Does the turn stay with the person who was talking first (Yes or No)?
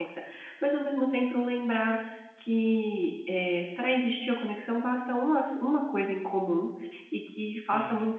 Yes